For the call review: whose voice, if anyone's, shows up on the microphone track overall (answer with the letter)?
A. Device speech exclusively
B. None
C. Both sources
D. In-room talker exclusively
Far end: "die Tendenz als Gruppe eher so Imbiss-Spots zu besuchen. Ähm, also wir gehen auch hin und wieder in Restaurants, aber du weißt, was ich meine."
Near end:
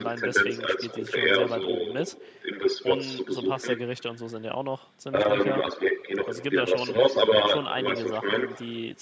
C